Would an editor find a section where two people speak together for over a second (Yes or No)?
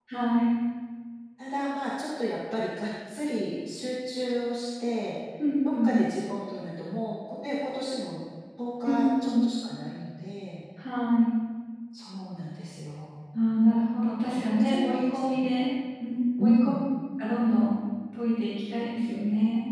Yes